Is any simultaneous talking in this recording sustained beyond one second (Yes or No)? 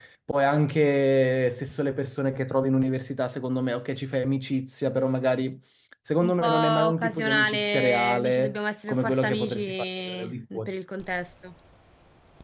Yes